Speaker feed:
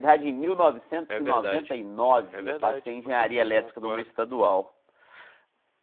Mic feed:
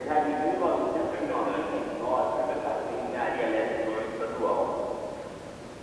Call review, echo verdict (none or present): present